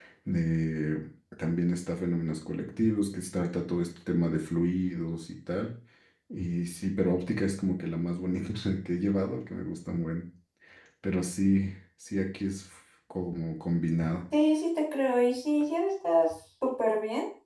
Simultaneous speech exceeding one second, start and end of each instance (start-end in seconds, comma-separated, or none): none